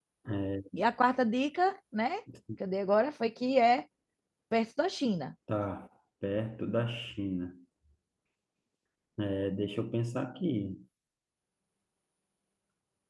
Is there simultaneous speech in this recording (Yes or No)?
No